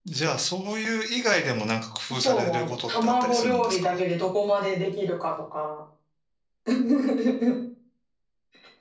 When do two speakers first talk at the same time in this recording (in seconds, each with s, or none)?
2.2 s